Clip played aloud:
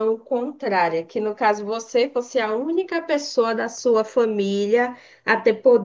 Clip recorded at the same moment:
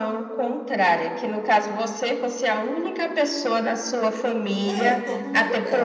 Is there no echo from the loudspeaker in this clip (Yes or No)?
No